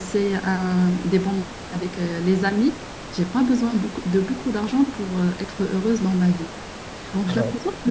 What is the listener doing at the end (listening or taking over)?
listening